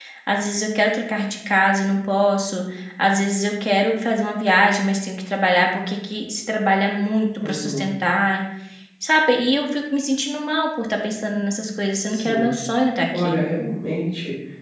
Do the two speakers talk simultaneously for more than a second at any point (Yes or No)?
No